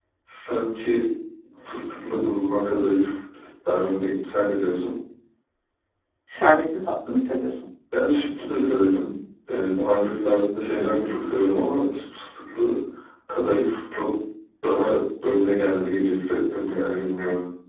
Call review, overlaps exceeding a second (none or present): none